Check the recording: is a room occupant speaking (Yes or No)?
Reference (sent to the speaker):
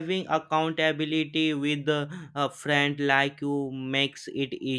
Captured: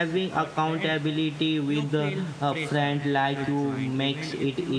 Yes